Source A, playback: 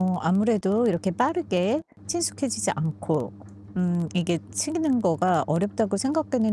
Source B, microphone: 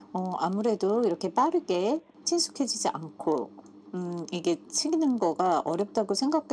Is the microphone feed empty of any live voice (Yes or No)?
Yes